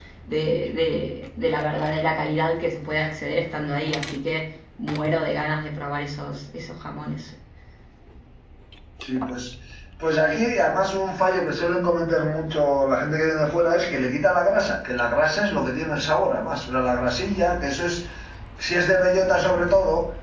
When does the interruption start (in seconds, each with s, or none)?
none